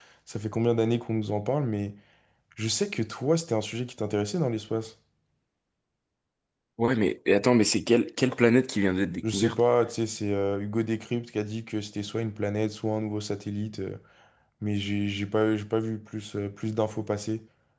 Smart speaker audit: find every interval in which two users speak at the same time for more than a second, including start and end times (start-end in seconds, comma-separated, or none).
none